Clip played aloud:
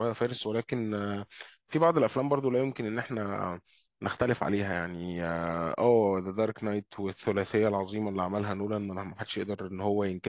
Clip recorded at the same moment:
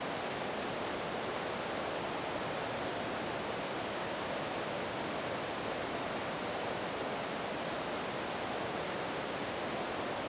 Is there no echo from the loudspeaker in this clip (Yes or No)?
Yes